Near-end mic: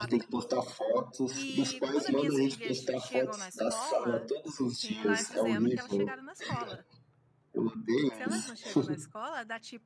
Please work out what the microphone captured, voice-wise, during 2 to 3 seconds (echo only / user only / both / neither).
both